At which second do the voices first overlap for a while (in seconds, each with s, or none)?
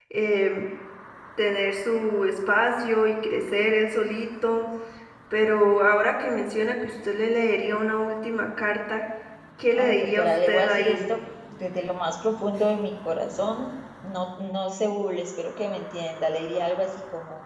9.7 s